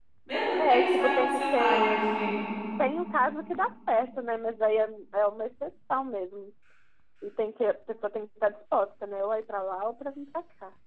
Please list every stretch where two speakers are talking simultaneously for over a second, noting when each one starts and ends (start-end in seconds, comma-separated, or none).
0.6-1.8